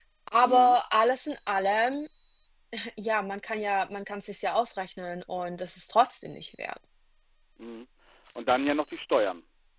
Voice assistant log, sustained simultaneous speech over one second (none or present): none